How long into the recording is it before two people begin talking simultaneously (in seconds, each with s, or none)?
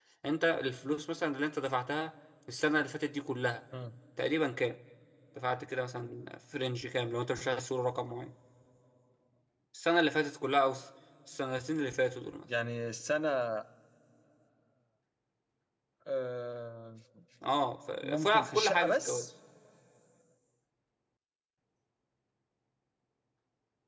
18.0 s